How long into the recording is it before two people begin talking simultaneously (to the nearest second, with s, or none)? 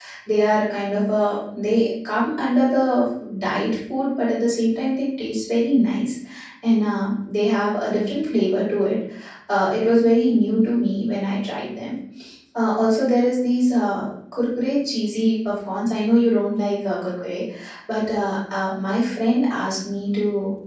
none